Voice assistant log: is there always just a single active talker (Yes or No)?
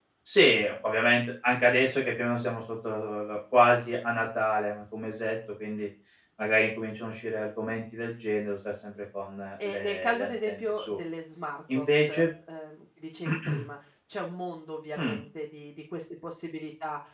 No